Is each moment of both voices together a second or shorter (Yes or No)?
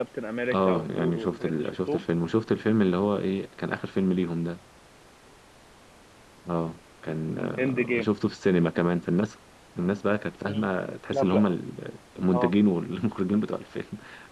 No